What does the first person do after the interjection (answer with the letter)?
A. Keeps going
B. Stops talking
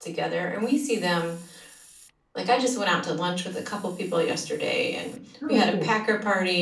A